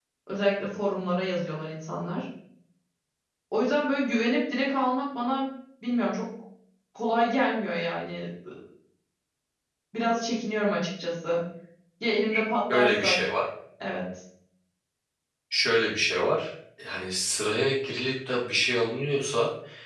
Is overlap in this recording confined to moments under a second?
Yes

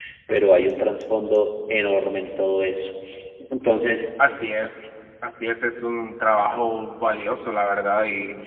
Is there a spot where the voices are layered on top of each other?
No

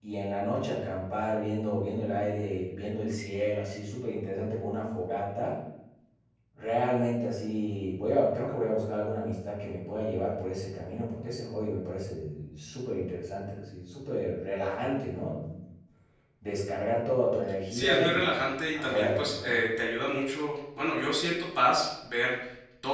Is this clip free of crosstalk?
No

